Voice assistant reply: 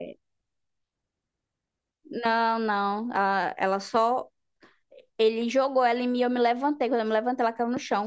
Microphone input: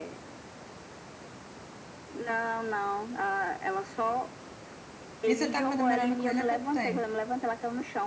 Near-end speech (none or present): present